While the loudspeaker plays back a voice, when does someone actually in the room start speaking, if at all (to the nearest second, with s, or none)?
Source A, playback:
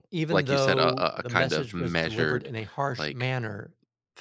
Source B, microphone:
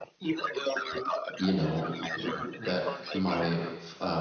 1 s